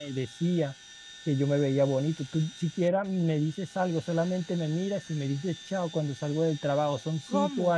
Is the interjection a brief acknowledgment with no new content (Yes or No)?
Yes